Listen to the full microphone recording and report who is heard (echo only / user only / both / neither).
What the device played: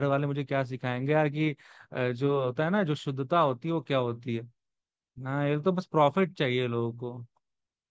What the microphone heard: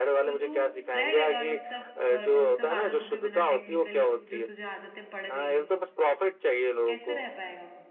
both